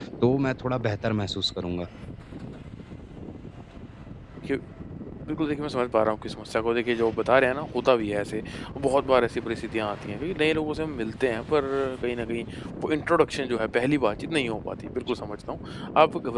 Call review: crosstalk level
none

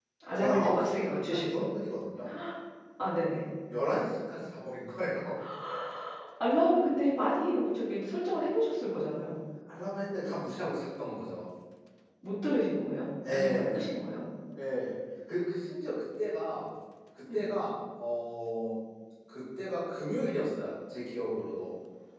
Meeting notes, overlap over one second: present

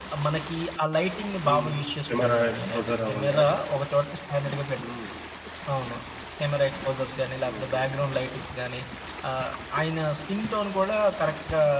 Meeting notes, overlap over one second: present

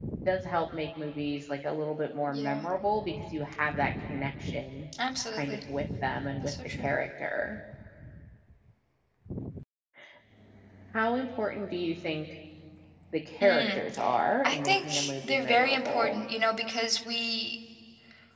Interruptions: present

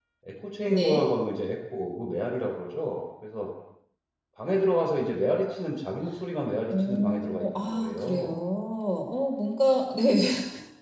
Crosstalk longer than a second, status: present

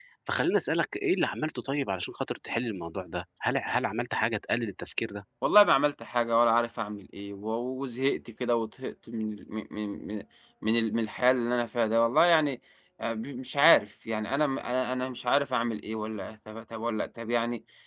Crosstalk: none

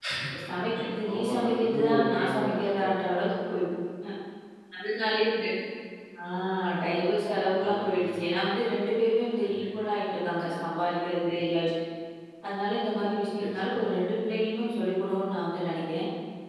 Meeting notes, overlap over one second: present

